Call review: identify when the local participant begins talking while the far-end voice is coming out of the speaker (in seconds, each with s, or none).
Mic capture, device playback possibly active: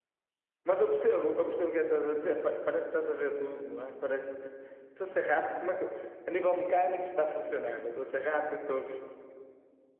0.6 s